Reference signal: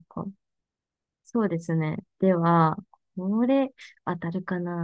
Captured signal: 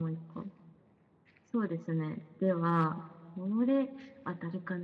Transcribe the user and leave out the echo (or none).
none